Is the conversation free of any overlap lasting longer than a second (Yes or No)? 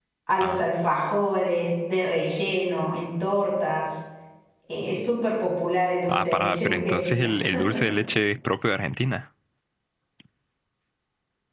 No